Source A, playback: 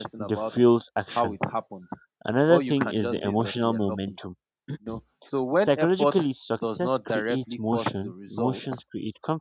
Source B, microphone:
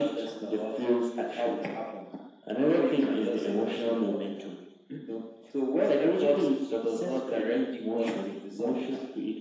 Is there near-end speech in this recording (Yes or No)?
No